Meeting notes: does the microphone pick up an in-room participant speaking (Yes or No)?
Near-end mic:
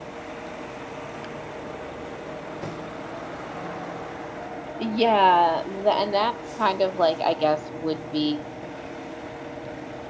Yes